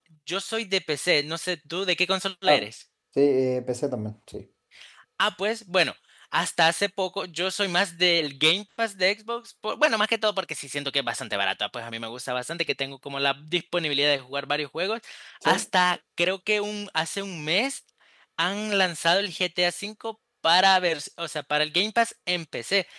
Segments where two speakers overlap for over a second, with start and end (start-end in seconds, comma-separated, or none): none